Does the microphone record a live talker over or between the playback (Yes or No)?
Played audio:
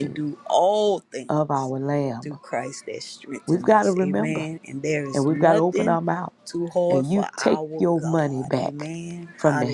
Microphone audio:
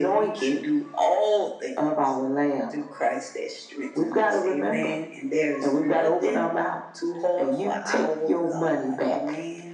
No